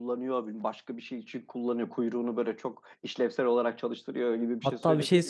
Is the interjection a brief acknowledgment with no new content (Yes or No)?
No